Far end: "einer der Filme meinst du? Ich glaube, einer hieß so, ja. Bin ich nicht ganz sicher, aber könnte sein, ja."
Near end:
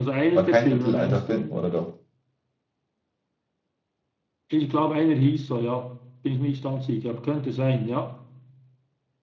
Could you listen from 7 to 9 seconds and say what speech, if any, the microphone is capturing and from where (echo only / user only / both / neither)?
echo only